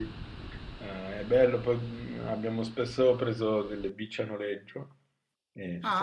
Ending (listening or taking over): taking over